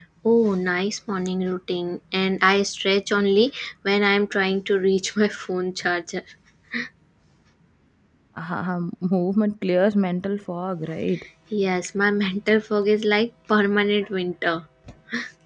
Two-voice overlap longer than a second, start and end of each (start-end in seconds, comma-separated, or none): none